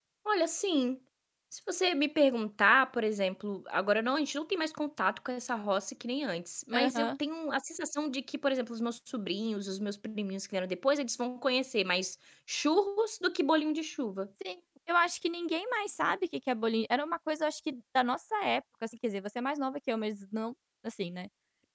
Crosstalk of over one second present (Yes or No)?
No